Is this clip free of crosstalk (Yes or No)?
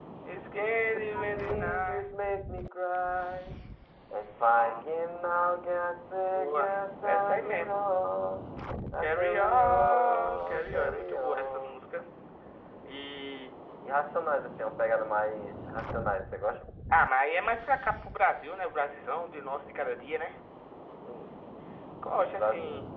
No